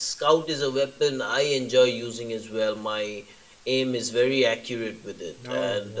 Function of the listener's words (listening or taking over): listening